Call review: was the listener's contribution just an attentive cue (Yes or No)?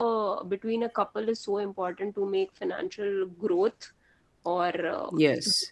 Yes